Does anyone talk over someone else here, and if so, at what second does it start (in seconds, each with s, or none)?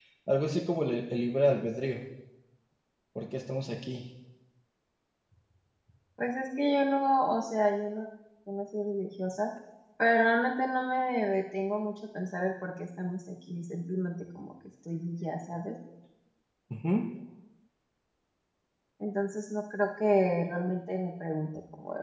none